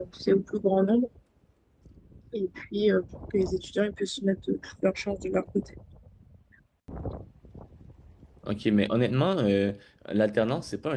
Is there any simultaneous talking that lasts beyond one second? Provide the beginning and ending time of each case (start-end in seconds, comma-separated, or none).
none